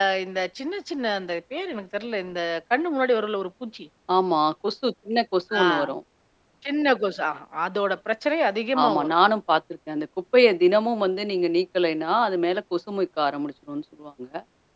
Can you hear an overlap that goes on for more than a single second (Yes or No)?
No